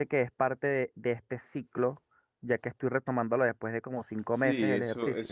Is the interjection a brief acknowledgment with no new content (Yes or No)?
No